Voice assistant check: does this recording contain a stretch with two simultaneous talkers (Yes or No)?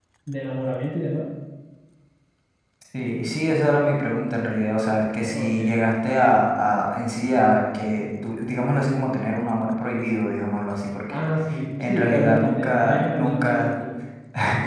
Yes